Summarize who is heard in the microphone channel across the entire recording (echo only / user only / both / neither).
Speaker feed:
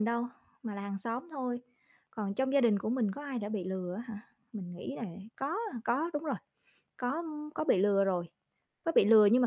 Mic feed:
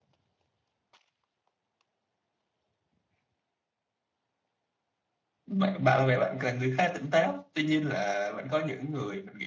user only